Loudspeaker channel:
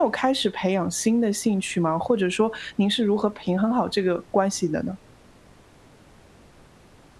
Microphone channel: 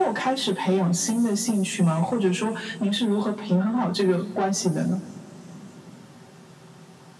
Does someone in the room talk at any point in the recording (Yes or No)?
No